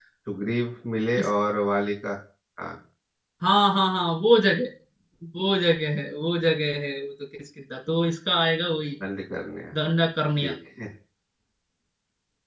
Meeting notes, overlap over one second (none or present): none